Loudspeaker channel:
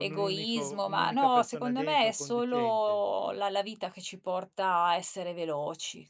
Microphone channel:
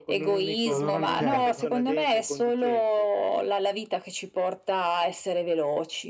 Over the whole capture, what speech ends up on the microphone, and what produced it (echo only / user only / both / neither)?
both